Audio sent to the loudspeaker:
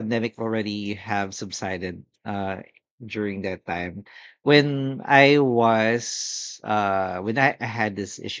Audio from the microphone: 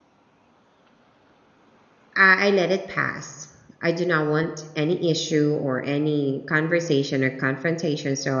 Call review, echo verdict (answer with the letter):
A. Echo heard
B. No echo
B